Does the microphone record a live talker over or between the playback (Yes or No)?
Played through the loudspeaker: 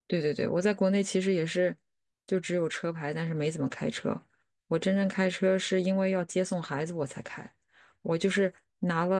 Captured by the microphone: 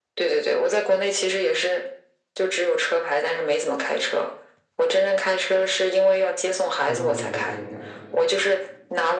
Yes